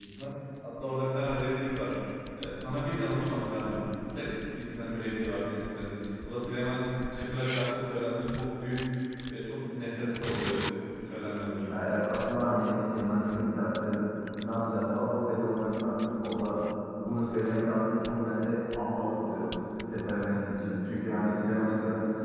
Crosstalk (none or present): none